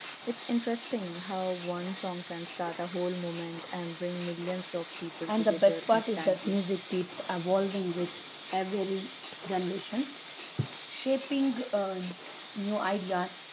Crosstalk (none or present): present